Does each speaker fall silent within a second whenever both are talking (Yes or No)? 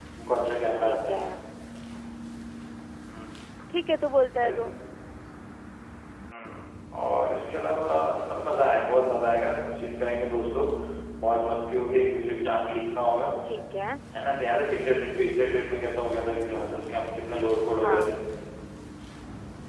Yes